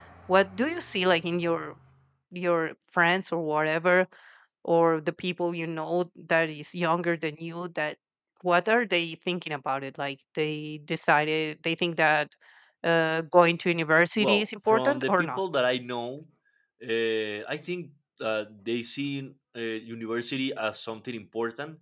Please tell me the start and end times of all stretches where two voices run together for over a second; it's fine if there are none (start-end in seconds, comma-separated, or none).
14.2-15.4